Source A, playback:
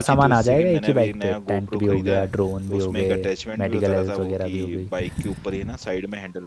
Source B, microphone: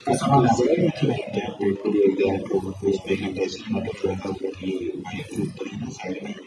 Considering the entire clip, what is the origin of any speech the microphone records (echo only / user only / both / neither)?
echo only